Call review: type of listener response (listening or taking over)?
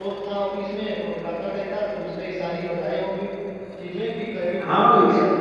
taking over